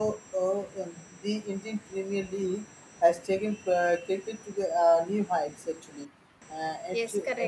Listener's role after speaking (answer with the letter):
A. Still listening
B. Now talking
B